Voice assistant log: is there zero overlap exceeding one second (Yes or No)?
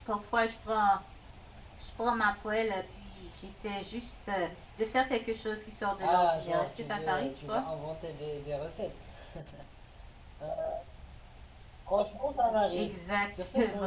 No